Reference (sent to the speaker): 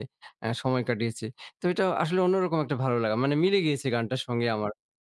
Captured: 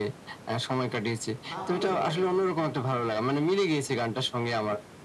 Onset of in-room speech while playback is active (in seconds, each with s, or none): 1.5 s